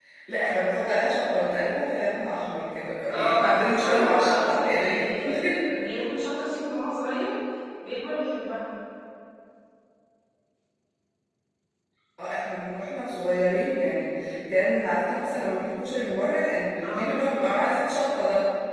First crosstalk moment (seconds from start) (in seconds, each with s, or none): 3.1 s